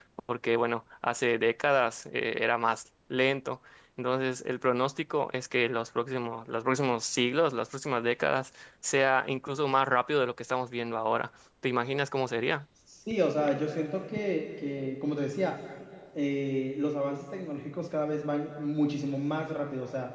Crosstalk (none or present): none